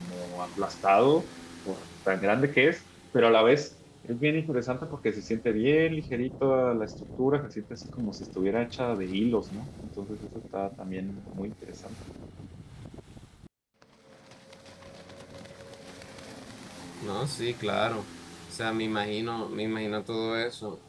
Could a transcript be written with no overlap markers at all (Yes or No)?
Yes